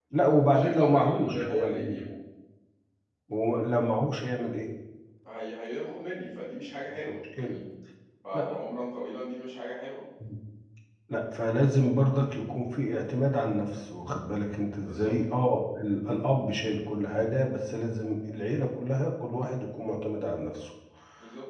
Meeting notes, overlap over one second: present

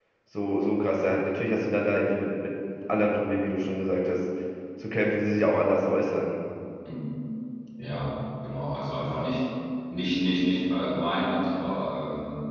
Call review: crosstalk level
none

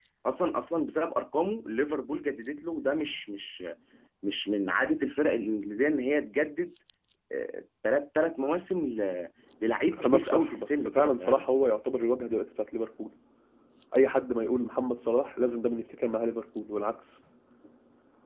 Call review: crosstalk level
present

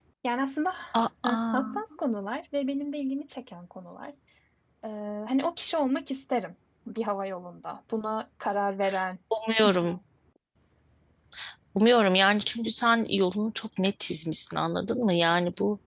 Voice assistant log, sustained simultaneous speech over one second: none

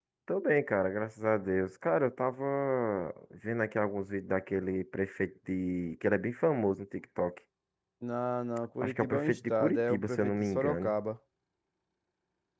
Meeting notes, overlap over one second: present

